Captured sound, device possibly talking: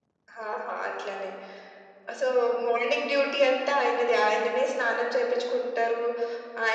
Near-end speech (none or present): none